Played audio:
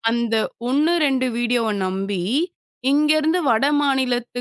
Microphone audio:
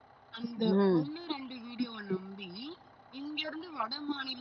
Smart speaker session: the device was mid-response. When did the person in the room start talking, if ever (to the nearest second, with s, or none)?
1 s